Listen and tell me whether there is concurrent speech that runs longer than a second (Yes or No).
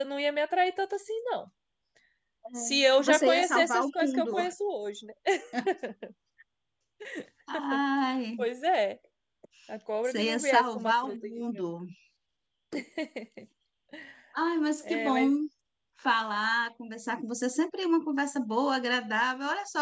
Yes